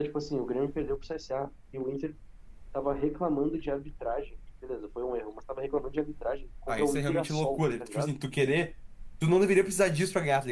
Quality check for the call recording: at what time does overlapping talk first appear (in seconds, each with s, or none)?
6.7 s